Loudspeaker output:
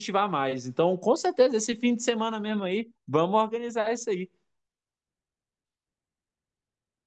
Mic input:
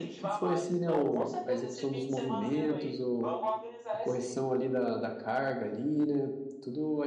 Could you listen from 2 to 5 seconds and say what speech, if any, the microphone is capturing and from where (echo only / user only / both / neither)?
both